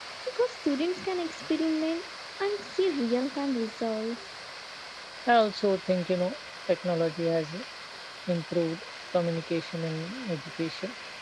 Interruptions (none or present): none